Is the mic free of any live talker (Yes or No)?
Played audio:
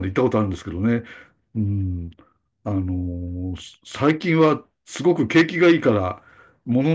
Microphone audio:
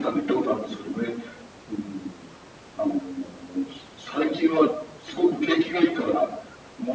Yes